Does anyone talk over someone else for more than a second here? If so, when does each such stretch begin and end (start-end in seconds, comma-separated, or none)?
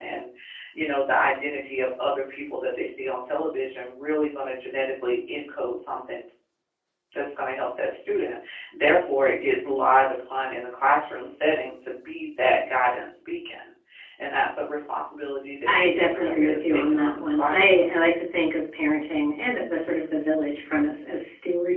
15.7-17.9